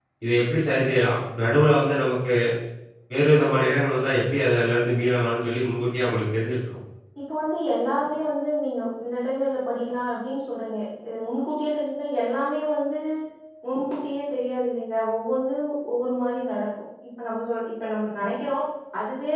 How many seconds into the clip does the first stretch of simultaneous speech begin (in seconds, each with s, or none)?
none